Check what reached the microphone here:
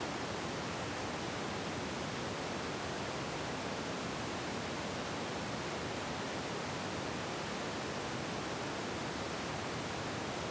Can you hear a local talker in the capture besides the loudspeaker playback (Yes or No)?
No